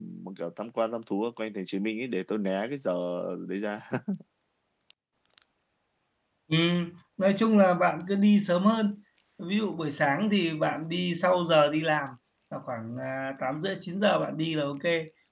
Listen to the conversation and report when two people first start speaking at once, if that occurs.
none

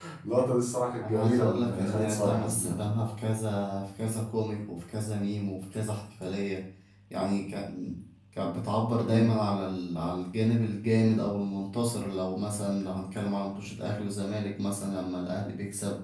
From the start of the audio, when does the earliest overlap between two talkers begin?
1.0 s

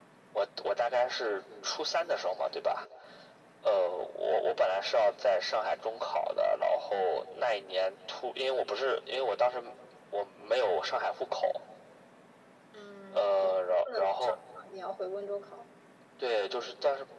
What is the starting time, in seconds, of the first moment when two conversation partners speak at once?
13.1 s

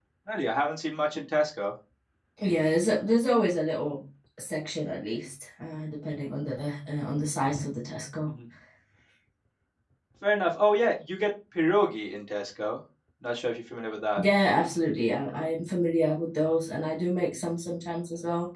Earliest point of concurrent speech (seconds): none

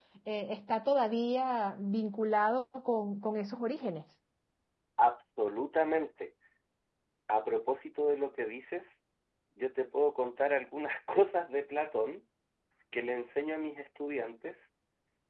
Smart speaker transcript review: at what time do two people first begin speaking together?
none

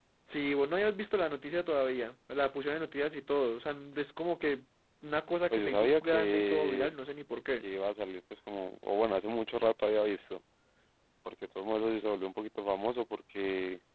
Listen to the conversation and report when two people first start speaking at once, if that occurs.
5.5 s

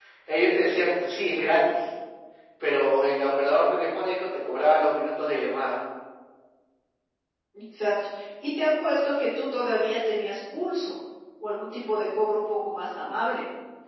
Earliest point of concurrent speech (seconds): none

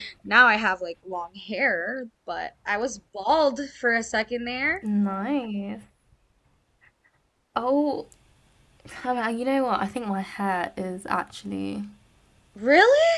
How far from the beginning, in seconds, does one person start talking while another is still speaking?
none

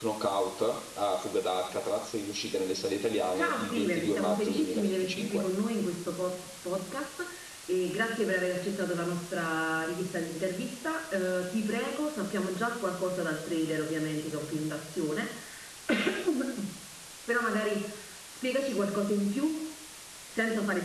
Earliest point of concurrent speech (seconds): 3.4 s

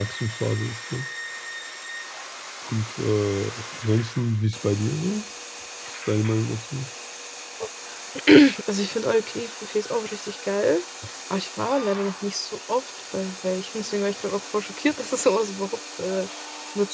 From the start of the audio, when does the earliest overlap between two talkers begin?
none

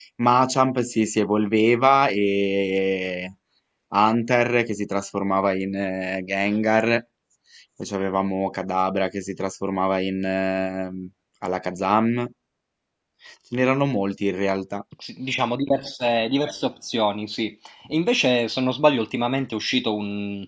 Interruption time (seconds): none

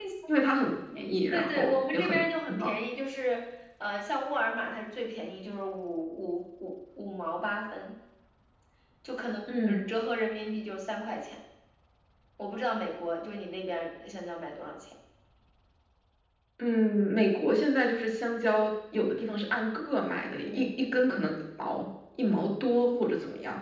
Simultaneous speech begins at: 1.3 s

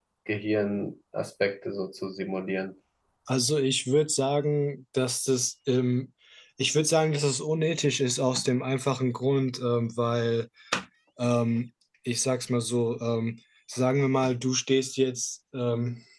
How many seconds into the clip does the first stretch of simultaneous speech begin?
none

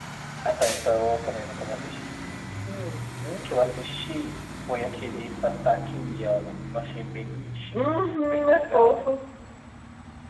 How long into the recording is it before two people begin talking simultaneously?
7.7 s

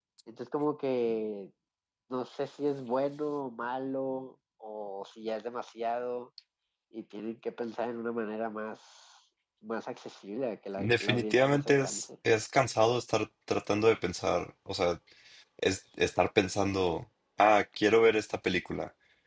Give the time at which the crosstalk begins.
10.8 s

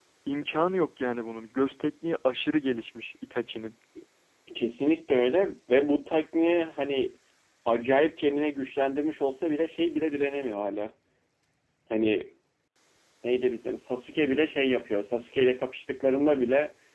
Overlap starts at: none

